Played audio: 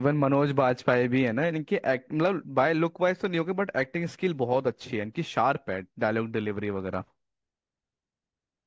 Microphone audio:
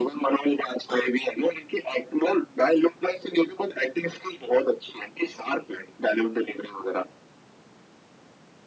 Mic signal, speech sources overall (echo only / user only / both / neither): echo only